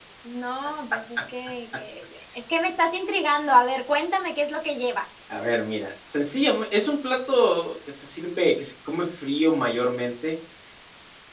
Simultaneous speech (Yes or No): No